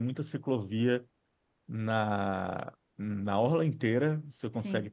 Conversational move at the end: listening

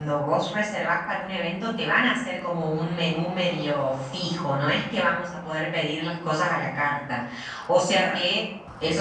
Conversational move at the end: listening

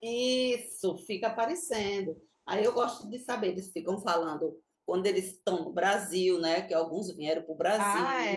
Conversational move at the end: taking over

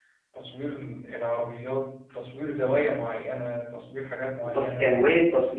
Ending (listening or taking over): taking over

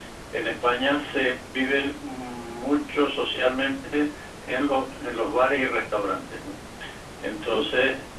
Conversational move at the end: listening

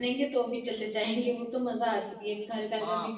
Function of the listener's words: taking over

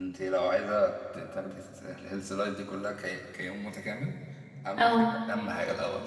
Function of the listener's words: listening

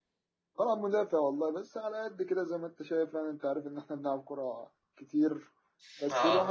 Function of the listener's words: listening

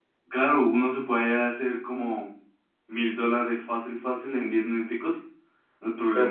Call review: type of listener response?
listening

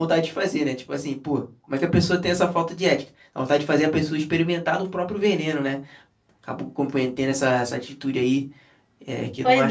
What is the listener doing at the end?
taking over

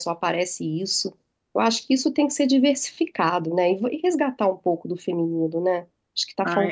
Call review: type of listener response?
taking over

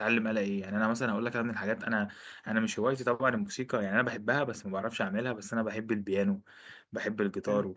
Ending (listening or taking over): listening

